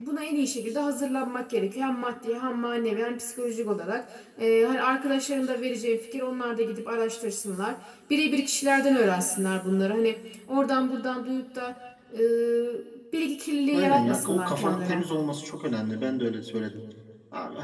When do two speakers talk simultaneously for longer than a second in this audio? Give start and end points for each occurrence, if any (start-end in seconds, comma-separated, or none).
13.7-15.0